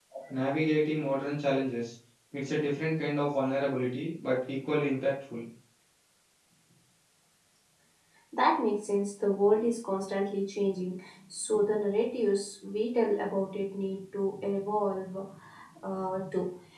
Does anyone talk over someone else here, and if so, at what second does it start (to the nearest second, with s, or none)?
none